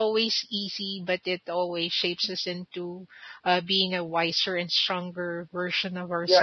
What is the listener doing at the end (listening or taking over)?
taking over